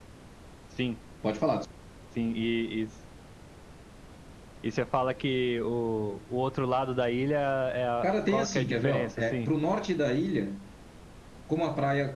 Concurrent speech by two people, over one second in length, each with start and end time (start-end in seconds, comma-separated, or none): 8.0-9.5